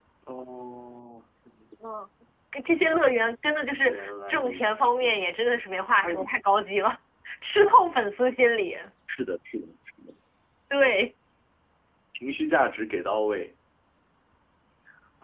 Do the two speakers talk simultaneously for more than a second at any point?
Yes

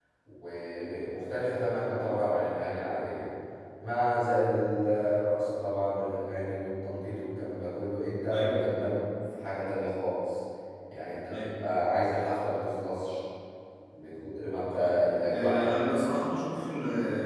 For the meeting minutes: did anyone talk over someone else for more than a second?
Yes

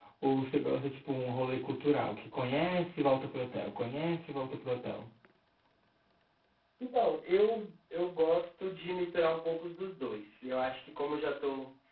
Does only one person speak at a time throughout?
Yes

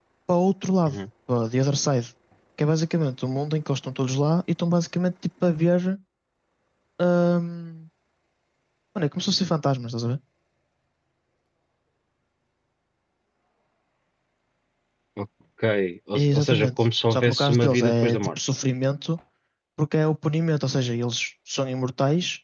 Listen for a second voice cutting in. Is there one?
Yes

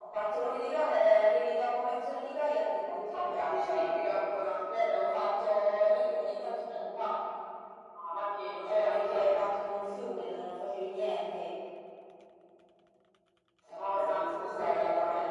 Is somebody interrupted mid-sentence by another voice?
Yes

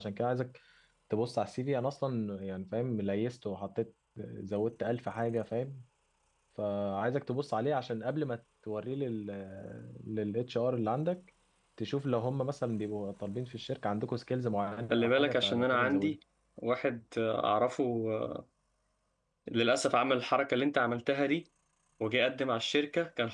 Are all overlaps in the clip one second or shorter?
No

